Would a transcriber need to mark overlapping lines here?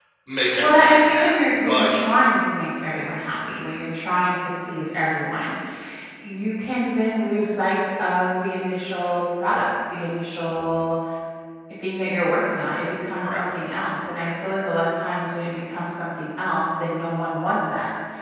Yes, from 0.6 s

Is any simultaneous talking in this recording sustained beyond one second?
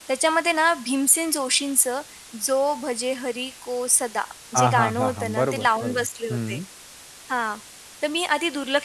Yes, from 4.5 s

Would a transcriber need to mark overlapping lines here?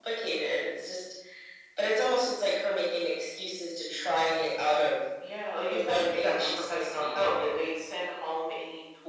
Yes, from 5.7 s

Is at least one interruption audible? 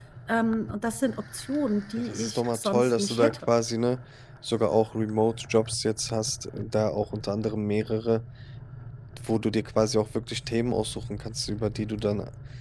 Yes, from 2.0 s

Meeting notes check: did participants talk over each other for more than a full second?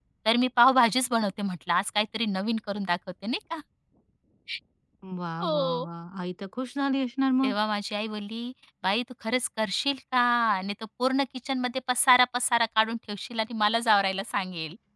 No

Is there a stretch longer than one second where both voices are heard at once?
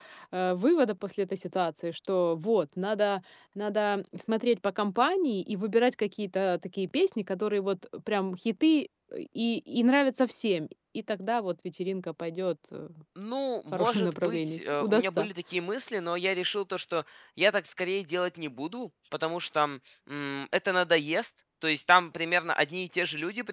Yes, from 13.7 s

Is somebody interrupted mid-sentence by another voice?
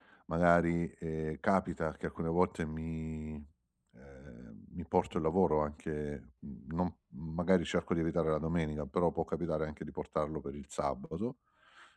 No

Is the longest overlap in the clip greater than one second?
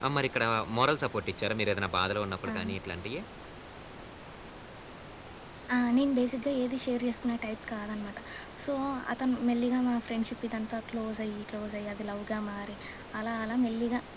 No

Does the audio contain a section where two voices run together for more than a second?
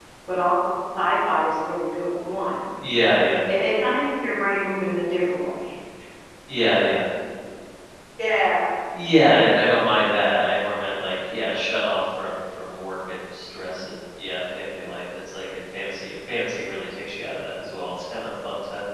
No

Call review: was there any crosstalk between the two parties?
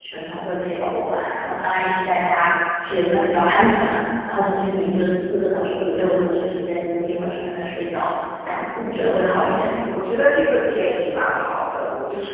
No

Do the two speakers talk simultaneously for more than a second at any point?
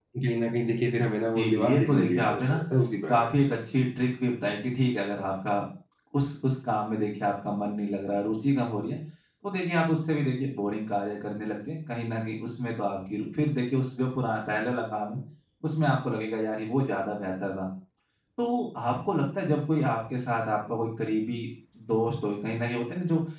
Yes, from 1.4 s

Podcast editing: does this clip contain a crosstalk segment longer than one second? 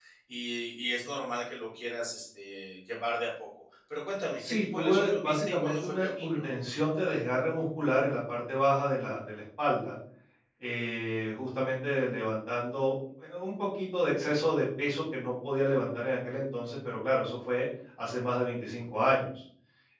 Yes, from 4.4 s

